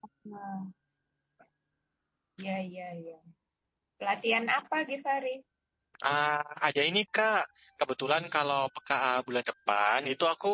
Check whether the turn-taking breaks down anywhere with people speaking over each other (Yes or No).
No